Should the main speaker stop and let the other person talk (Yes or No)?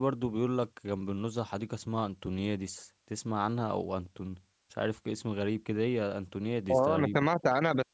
Yes